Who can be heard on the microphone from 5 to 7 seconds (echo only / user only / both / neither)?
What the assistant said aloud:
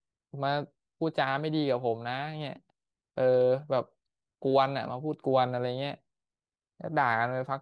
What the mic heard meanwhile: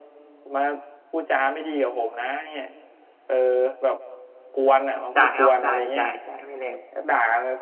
both